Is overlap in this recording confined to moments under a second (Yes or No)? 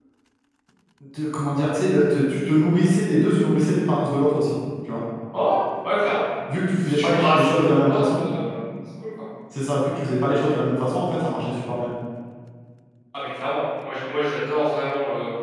No